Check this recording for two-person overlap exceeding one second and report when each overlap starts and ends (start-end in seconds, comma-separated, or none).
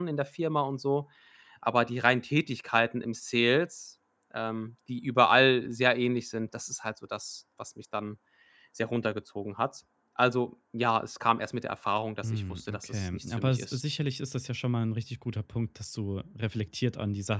12.2-13.8